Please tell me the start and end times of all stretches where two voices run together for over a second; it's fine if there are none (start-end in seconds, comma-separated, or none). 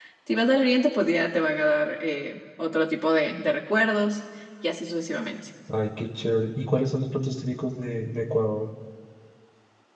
none